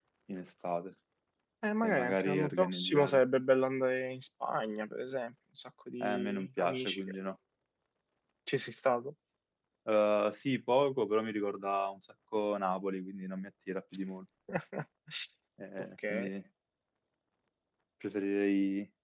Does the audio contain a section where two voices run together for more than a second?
Yes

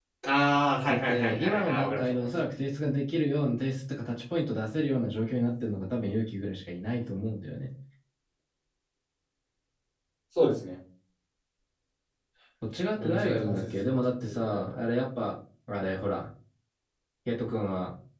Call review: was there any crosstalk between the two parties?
Yes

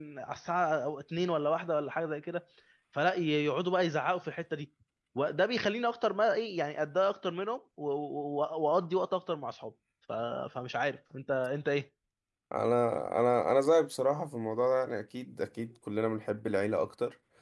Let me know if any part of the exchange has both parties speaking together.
No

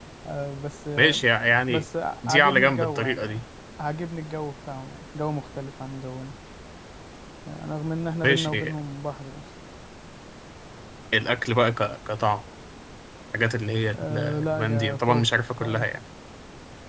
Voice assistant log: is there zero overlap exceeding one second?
No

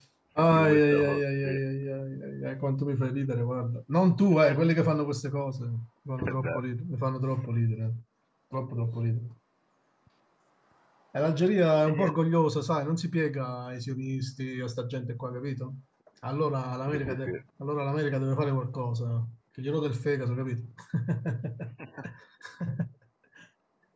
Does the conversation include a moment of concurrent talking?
Yes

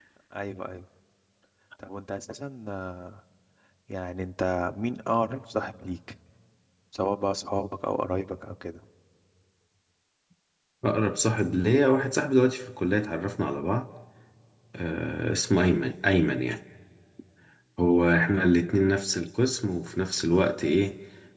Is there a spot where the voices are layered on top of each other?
No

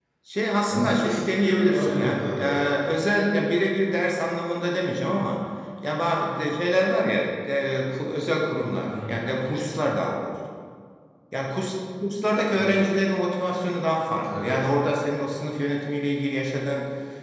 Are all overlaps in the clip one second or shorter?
No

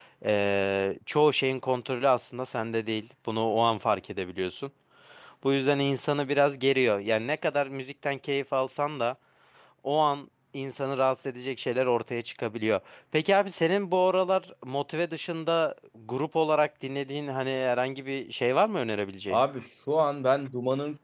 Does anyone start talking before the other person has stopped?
No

